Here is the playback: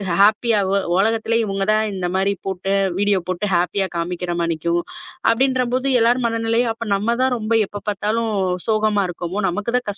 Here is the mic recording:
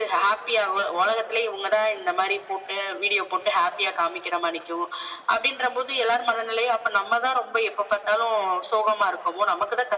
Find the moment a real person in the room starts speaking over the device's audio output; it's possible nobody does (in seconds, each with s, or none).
none